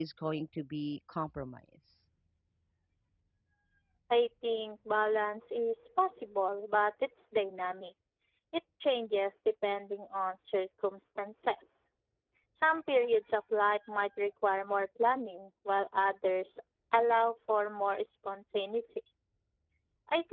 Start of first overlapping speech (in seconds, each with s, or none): none